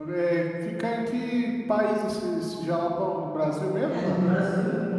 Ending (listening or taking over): taking over